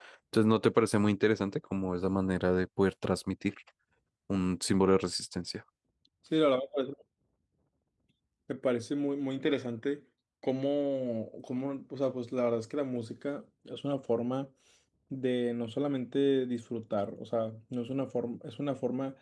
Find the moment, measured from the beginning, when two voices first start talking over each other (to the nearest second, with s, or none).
none